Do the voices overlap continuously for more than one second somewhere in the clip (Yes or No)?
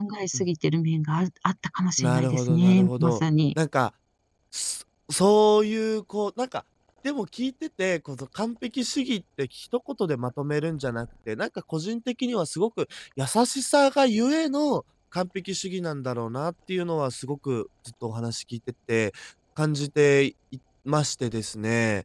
Yes